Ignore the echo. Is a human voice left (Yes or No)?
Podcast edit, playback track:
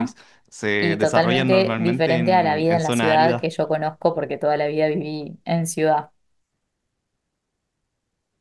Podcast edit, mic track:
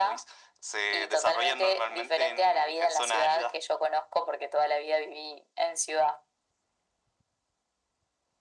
No